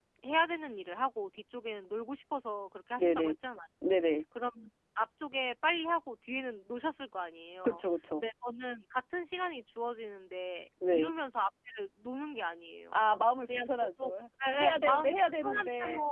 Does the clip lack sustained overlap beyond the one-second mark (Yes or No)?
No